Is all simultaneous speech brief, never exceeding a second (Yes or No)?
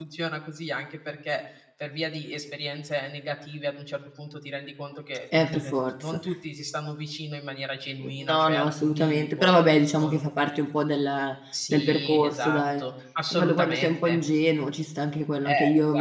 No